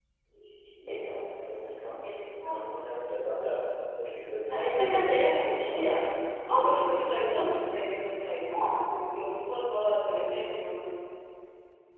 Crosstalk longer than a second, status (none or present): present